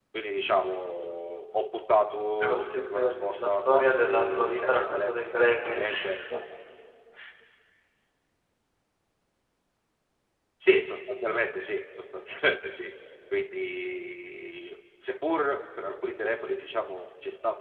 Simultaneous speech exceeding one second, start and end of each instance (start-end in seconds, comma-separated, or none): 2.4-5.3